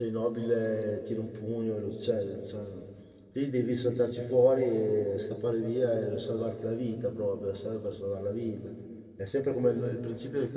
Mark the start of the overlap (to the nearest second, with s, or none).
none